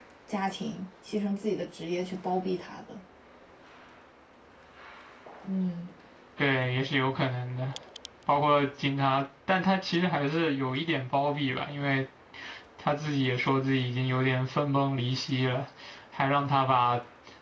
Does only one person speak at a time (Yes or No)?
Yes